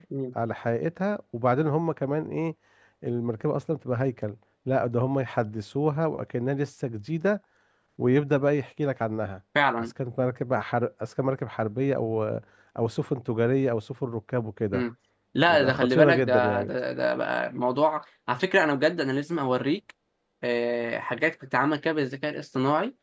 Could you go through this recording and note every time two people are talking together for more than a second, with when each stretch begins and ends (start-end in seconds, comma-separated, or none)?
15.5-16.7